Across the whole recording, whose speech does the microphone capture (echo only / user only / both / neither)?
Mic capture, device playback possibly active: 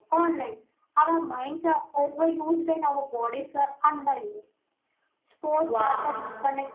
both